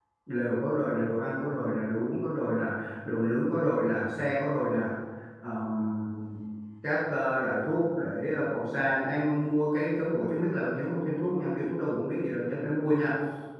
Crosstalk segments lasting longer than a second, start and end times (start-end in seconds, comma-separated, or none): none